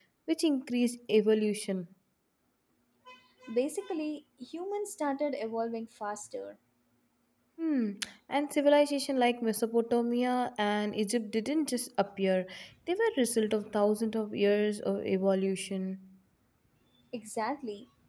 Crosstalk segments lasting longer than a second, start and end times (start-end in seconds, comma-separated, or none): none